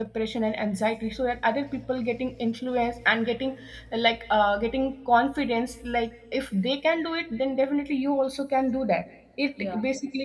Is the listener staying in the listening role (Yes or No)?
Yes